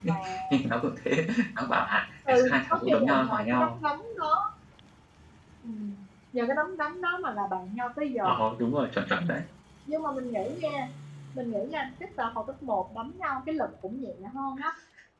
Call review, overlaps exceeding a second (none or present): present